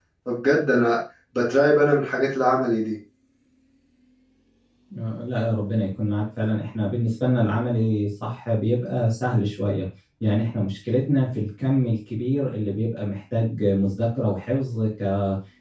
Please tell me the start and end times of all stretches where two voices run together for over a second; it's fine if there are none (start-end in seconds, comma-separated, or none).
none